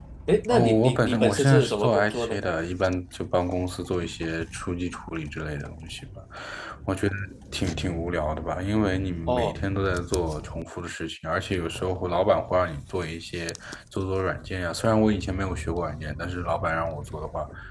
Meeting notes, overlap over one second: present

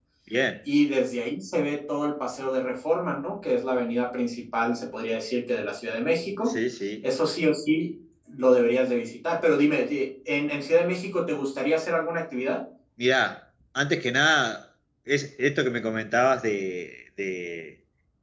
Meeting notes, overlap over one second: none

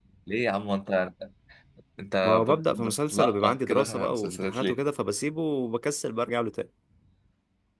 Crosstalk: present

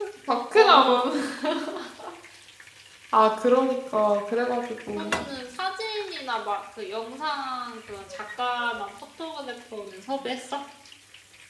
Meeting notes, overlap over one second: none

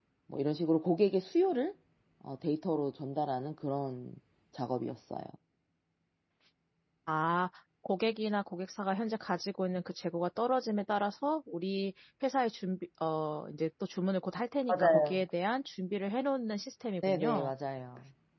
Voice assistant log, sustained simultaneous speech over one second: none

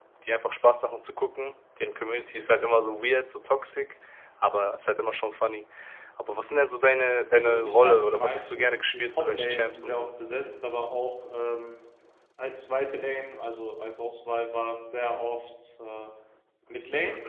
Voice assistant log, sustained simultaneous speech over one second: present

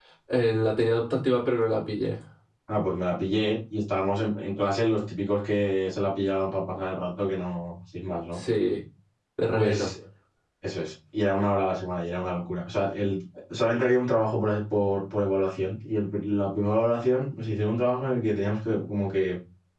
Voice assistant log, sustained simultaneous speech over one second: none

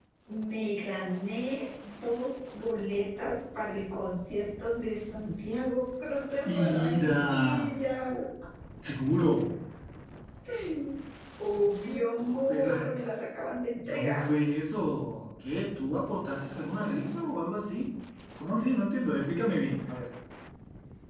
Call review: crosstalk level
present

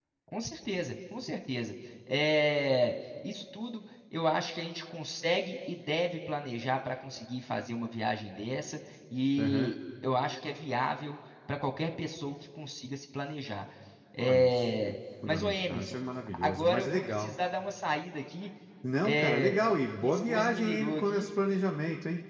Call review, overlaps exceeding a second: present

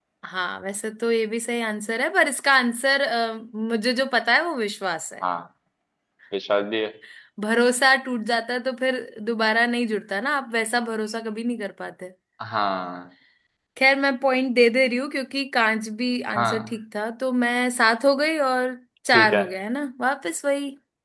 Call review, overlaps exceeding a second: none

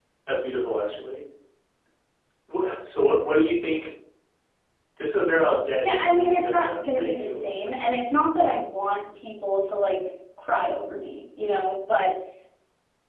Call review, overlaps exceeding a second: present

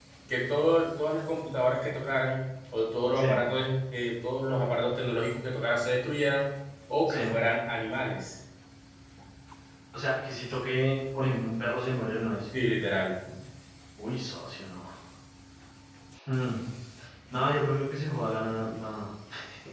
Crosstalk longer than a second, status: none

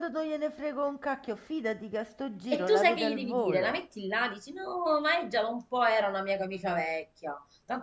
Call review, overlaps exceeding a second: present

